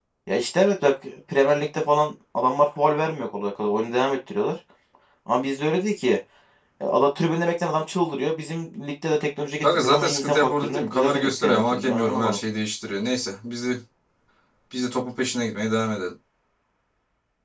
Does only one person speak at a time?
No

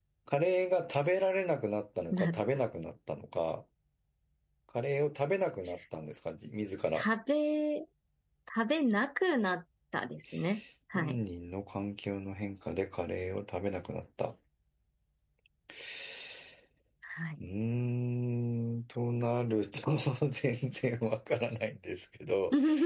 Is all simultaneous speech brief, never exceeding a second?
Yes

